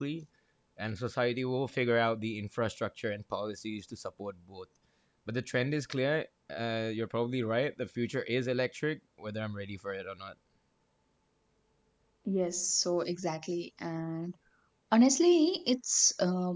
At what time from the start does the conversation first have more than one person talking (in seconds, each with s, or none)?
none